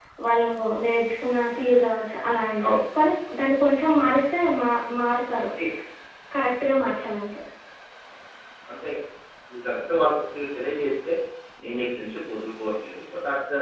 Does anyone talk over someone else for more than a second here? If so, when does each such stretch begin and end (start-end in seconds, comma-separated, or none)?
none